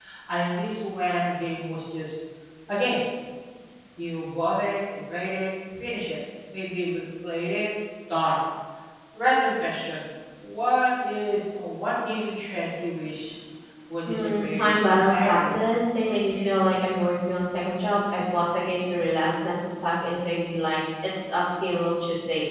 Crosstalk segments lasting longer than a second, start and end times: 14.1-15.6

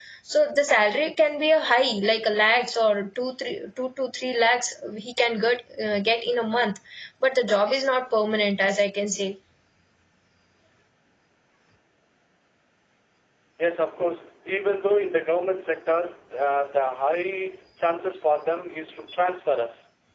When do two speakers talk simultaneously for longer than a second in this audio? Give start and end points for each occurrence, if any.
none

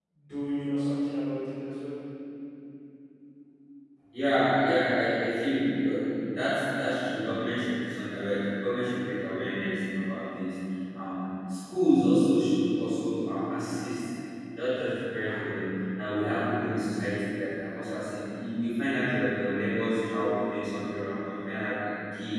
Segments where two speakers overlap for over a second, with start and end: none

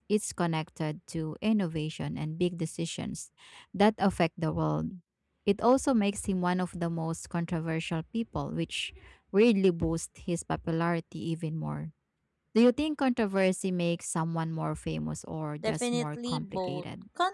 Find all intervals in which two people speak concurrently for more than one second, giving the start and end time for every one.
15.6-16.8

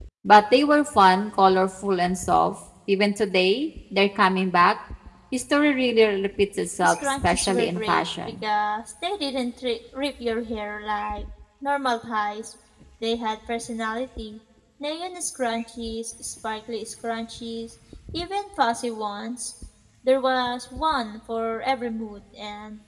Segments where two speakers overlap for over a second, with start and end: 6.8-8.4

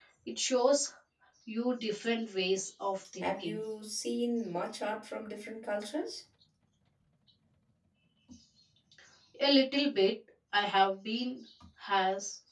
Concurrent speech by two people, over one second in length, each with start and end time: none

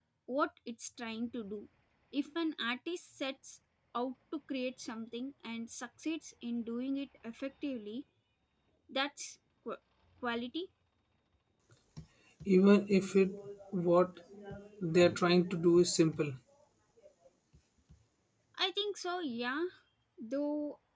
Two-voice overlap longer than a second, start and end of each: none

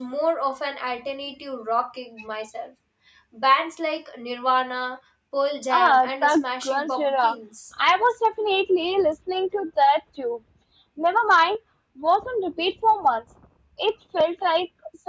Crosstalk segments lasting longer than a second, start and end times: 5.7-7.4

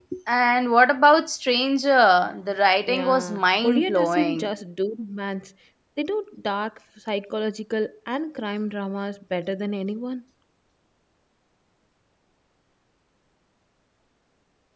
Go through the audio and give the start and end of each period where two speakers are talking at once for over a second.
2.9-4.5

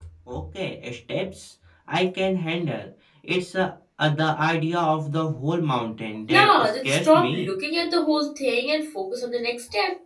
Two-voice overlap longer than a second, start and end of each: 6.3-7.5

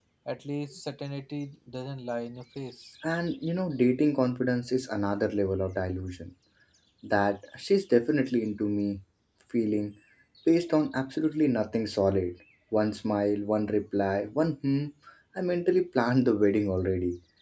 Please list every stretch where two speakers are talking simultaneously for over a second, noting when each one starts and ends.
none

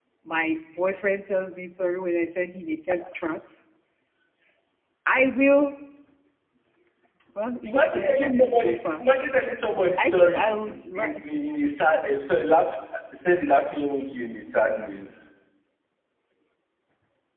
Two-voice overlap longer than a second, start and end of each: 7.6-9.0

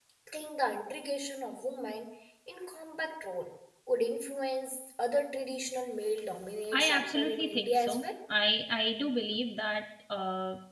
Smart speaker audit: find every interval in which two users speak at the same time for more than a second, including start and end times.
6.7-8.1

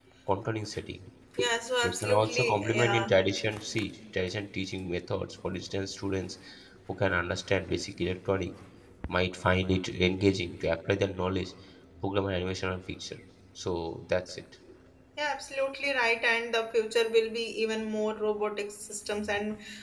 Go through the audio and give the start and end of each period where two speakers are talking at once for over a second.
1.8-3.1

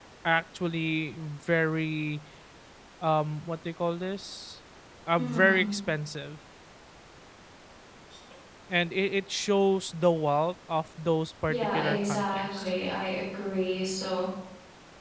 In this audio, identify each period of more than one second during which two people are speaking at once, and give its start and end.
11.5-12.7

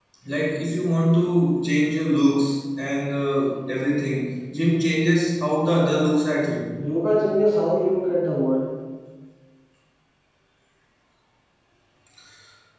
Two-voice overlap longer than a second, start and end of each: none

